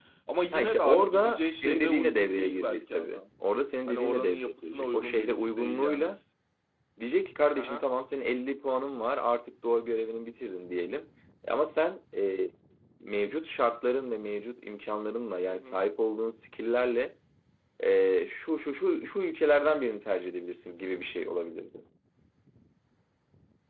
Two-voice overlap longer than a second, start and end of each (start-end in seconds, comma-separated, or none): 0.5-3.2, 3.9-6.1